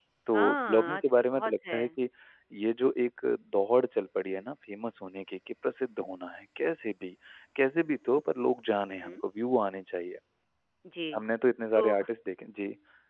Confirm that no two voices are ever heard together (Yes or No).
No